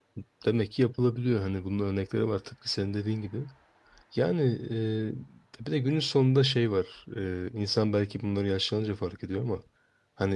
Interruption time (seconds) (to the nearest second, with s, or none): none